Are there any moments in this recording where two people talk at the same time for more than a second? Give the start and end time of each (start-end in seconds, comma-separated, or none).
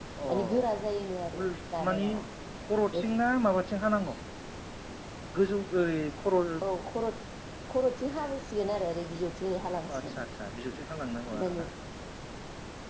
none